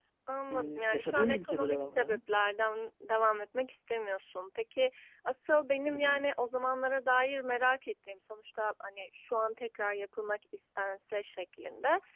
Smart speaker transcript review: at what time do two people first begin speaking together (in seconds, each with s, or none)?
0.5 s